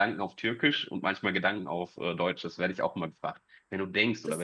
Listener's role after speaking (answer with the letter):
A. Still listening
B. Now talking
A